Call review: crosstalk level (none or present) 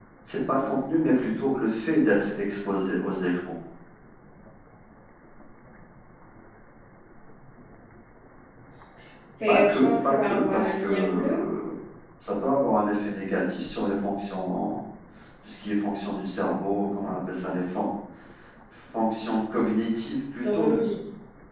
present